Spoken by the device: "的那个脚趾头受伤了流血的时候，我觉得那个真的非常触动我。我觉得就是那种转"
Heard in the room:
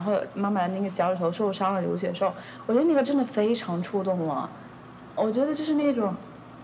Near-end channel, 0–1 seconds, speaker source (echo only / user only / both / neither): echo only